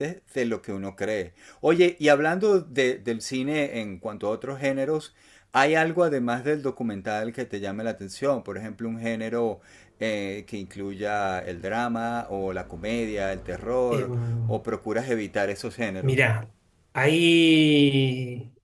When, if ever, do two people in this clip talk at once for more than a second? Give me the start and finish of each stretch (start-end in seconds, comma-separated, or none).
none